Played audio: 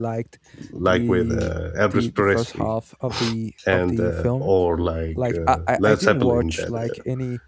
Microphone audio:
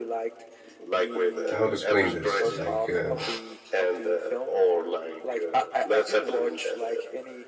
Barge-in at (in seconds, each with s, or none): 1.5 s